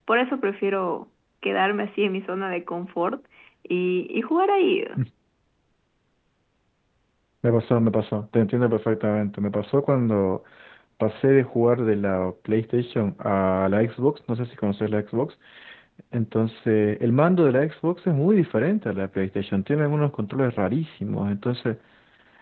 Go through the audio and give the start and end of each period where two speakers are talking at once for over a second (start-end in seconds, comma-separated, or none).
none